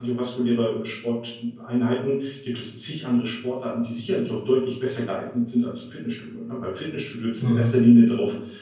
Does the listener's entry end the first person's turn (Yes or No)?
No